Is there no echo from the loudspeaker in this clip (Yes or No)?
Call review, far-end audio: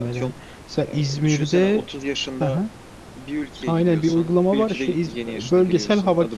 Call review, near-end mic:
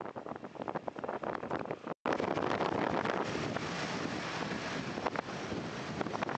Yes